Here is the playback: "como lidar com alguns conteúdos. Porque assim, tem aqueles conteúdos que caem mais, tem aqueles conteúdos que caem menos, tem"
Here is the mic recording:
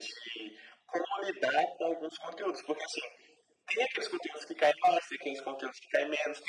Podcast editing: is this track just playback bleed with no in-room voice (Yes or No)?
Yes